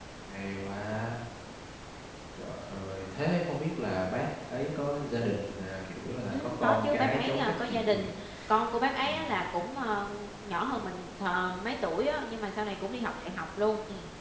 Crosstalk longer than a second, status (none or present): present